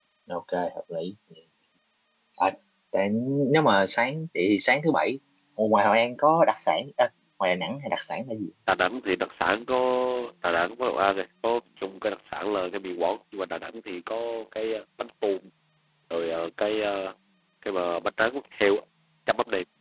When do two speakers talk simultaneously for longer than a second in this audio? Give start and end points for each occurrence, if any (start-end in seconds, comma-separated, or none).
none